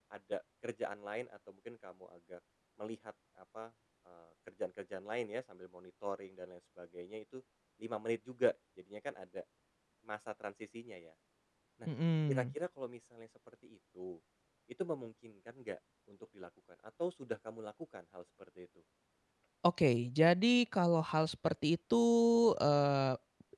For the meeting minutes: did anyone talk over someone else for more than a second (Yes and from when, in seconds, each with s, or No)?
No